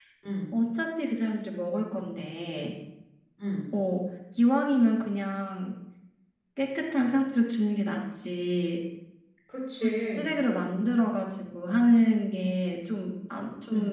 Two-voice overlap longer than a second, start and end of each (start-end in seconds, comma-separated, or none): none